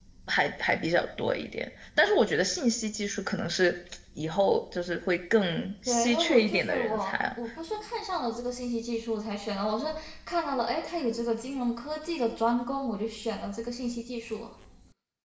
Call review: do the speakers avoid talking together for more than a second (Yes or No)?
No